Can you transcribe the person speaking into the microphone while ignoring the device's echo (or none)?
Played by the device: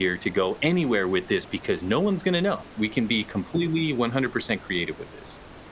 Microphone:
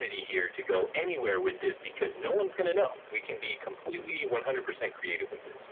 none